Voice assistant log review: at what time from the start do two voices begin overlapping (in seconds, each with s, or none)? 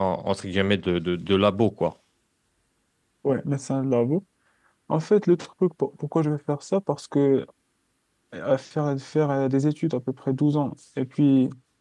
none